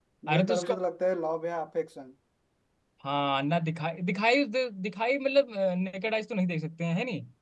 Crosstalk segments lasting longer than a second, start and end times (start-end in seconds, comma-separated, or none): none